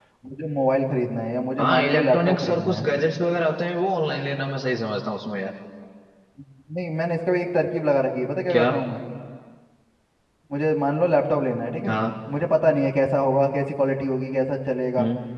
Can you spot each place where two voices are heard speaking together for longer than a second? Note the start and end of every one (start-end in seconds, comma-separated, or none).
1.6-3.1